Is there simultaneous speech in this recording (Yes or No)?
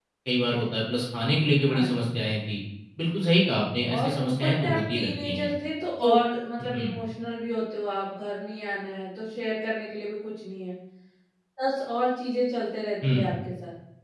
Yes